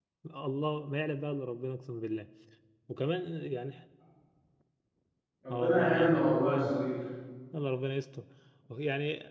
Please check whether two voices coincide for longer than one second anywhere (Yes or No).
Yes